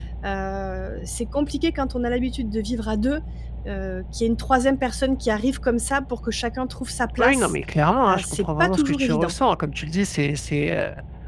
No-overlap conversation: No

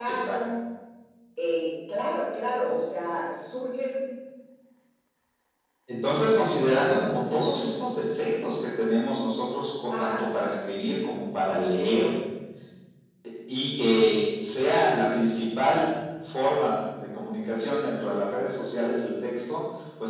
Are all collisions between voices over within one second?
Yes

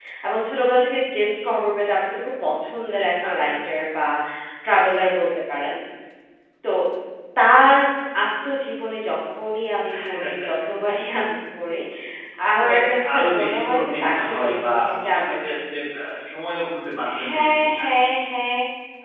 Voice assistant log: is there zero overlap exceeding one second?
No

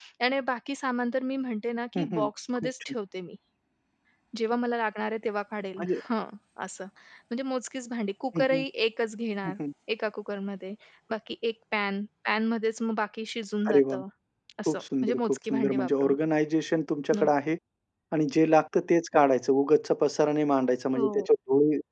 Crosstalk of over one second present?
Yes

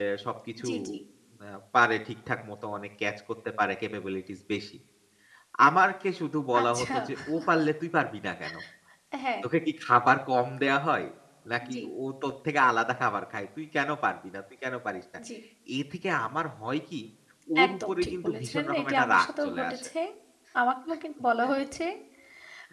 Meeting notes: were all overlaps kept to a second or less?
No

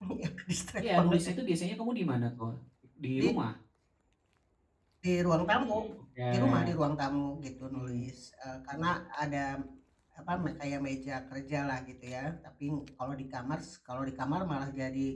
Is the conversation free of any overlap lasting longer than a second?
Yes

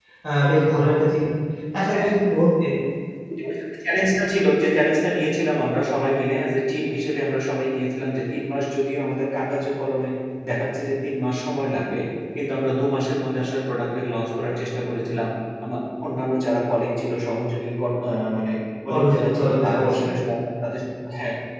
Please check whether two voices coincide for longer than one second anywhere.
Yes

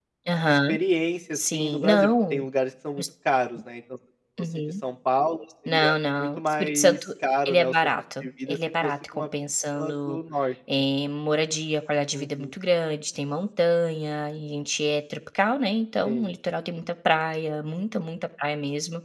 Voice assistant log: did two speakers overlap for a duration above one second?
Yes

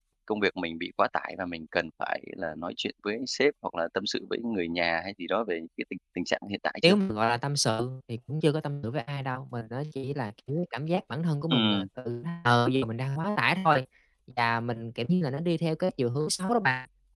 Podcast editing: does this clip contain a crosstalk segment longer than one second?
No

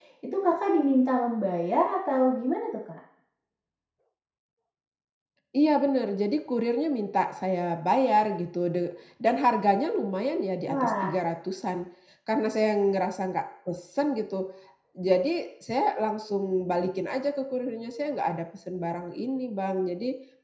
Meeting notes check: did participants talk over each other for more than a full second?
No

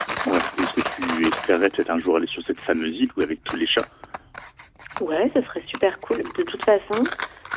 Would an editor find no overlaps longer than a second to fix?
Yes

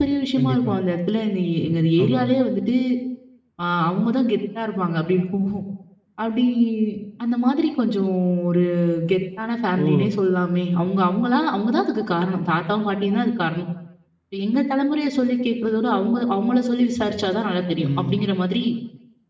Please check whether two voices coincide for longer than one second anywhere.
No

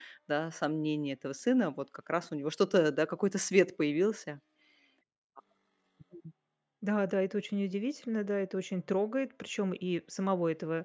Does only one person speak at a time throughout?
Yes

